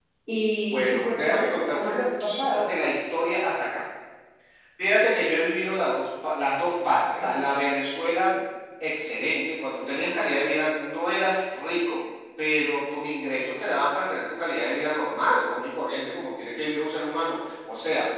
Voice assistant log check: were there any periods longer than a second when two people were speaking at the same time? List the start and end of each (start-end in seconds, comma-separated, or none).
0.7-2.6